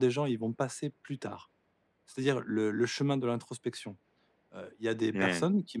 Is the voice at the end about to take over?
No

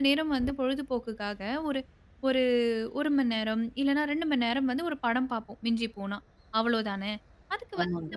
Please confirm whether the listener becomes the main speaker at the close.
No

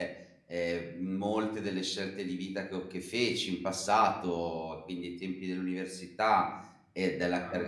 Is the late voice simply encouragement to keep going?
Yes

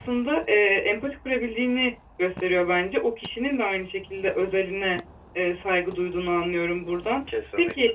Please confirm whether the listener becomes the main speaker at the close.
No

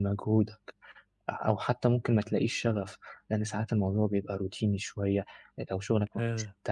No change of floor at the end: Yes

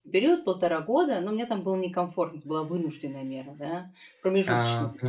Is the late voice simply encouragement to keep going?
Yes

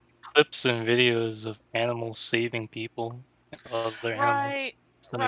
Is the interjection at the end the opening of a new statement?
Yes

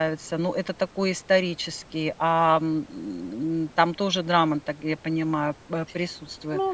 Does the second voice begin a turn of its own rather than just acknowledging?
Yes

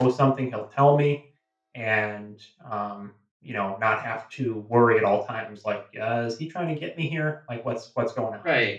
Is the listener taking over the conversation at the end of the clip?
Yes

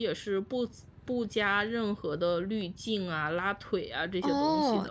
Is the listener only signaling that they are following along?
No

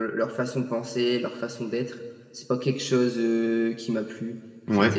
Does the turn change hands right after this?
No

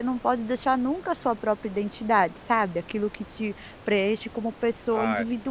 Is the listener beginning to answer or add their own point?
Yes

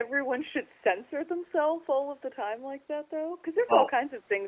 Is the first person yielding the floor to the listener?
No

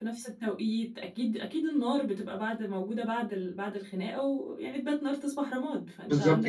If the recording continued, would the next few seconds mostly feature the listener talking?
Yes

